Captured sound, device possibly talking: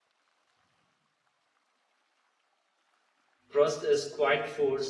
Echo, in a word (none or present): none